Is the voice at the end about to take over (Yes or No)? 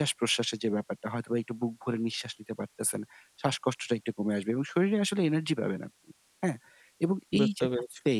No